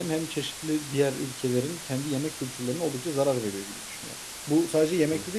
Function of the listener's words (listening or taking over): listening